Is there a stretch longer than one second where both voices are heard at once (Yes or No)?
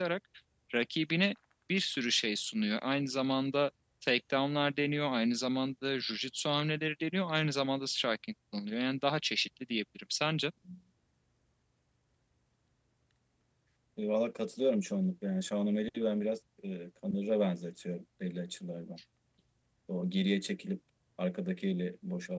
No